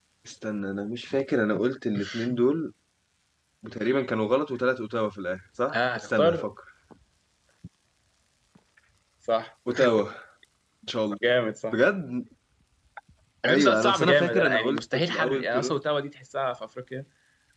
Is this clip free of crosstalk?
No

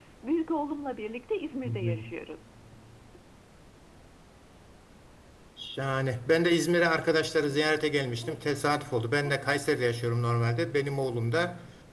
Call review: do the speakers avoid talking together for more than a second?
Yes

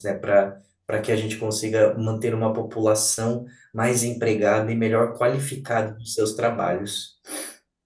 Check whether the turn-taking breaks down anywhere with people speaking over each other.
No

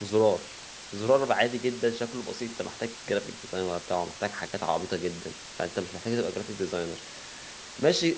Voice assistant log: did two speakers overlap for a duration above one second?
No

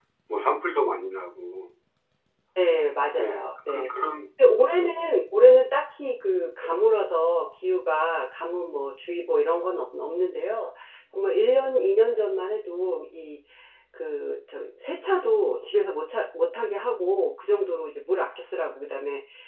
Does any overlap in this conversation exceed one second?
No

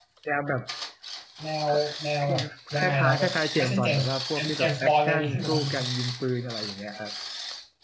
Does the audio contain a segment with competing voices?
Yes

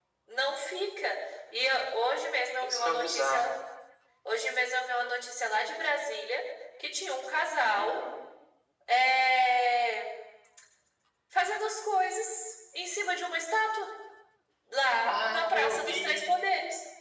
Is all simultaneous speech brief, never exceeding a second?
No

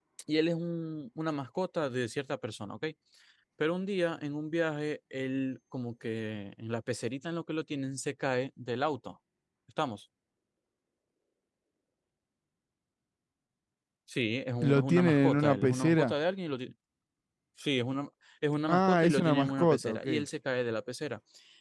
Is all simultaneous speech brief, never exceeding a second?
No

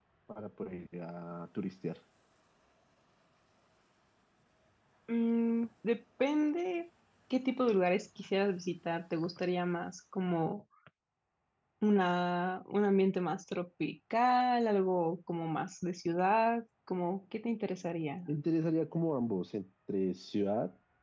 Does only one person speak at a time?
Yes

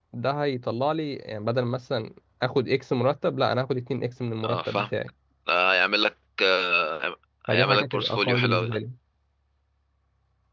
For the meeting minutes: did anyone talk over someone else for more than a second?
Yes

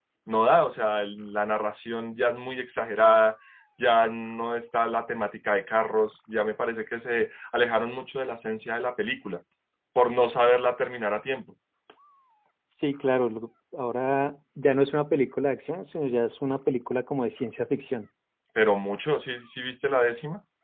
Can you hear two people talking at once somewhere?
No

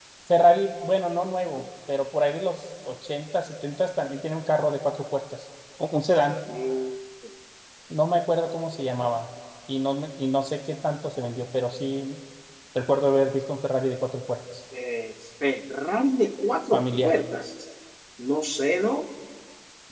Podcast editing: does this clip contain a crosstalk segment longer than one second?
No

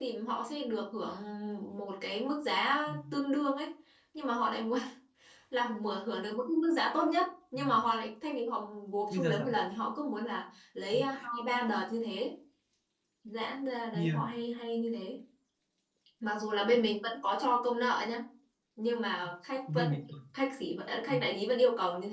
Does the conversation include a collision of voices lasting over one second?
No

